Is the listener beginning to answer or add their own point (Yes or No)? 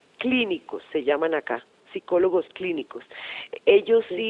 No